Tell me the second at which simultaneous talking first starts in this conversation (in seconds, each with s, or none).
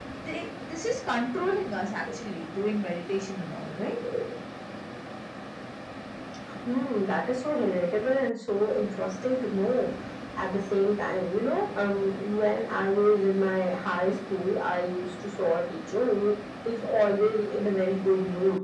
none